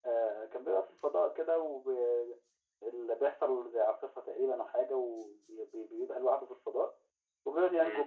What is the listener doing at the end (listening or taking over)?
listening